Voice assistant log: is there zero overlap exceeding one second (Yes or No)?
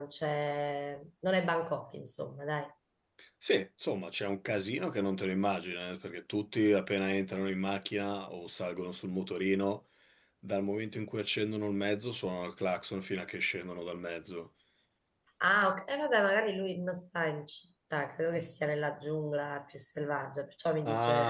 Yes